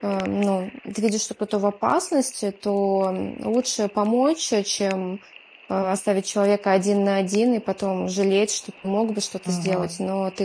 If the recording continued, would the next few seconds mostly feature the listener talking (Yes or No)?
No